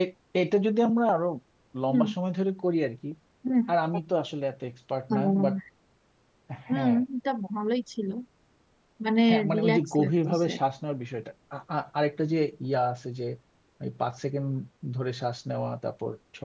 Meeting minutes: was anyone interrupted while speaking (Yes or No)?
Yes